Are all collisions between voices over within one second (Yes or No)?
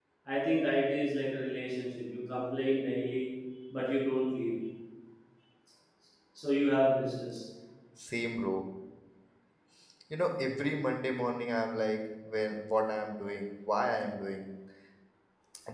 Yes